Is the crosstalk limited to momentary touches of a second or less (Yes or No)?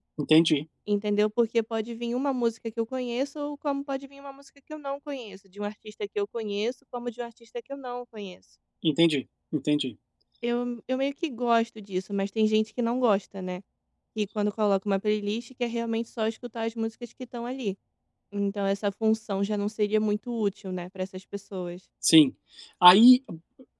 Yes